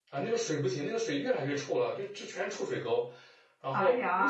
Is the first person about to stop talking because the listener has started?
No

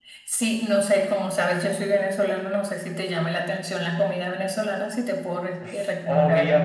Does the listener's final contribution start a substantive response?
Yes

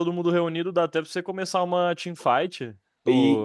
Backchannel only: No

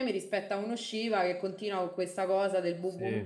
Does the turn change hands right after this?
No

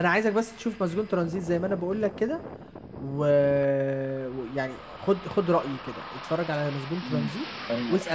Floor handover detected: Yes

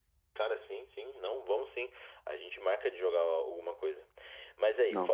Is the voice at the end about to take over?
No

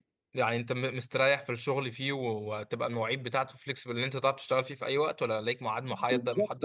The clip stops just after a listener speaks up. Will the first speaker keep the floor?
No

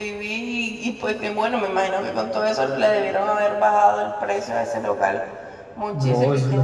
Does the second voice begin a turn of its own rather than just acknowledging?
Yes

